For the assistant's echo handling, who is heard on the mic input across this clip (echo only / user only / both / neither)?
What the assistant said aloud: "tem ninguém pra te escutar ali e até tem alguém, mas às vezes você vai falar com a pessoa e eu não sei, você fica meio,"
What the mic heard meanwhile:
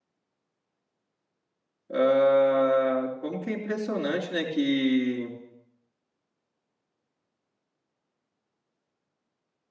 user only